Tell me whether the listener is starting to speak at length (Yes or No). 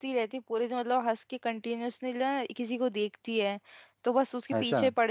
No